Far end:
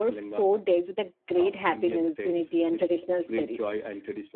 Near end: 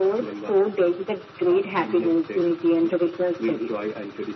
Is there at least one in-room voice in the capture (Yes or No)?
No